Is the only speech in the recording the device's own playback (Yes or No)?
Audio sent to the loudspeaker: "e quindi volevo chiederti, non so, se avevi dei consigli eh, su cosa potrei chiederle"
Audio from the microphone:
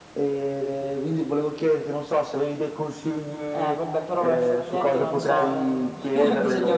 No